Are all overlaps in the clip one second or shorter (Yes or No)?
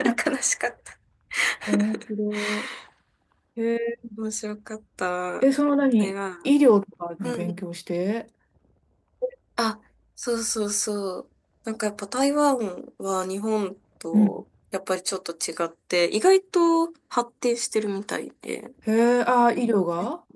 Yes